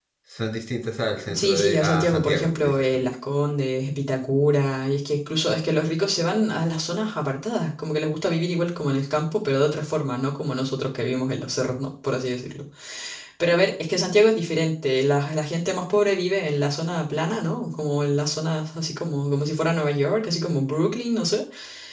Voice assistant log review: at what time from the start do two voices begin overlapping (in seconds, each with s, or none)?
1.3 s